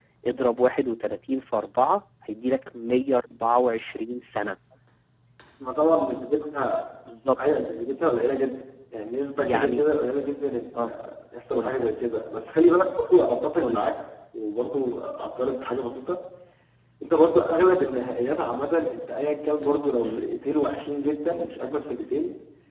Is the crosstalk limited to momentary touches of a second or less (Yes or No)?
Yes